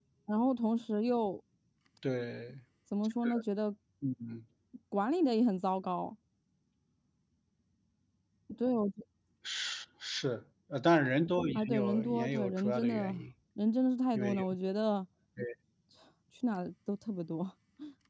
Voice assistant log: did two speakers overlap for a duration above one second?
Yes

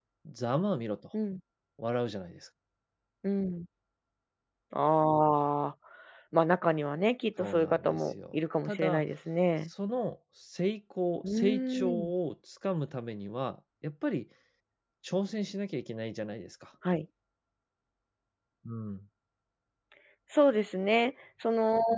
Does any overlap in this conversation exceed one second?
Yes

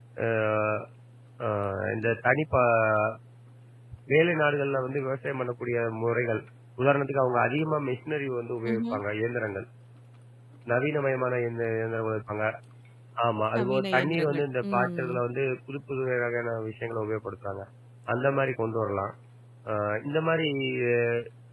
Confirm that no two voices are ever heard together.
No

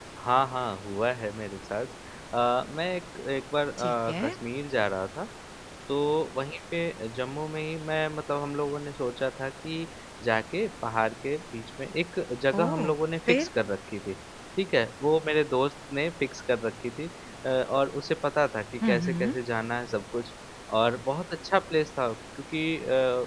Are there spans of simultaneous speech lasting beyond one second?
No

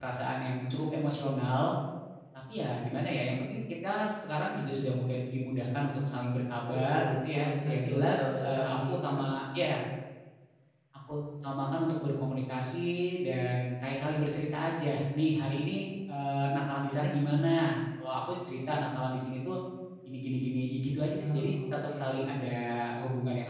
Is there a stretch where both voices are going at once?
Yes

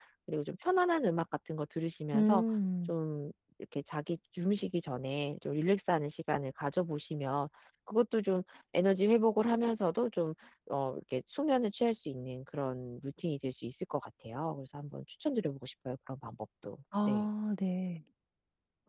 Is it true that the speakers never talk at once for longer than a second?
Yes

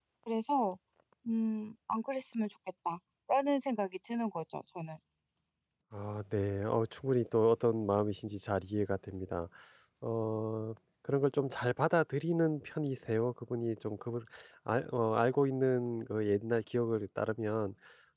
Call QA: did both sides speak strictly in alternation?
Yes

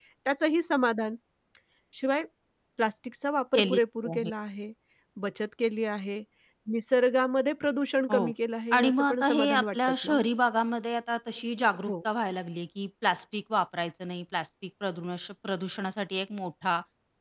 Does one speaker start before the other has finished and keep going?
Yes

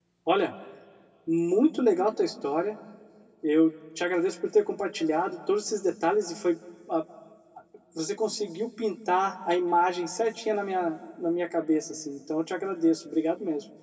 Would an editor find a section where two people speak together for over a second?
No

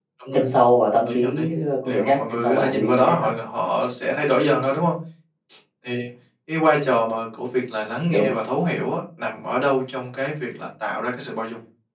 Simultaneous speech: Yes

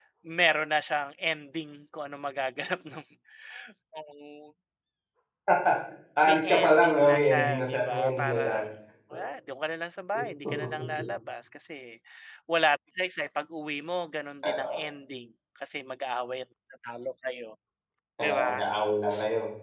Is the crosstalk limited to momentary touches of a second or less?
No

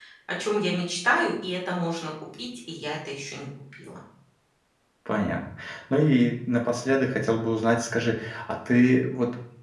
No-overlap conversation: Yes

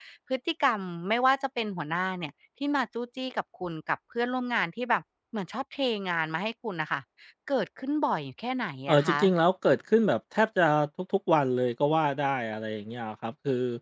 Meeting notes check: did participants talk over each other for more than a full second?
No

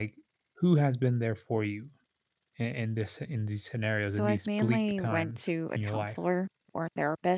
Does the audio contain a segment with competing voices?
Yes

